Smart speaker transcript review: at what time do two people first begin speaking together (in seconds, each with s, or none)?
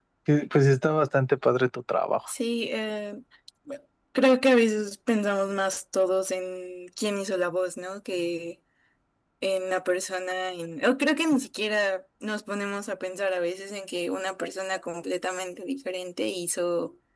none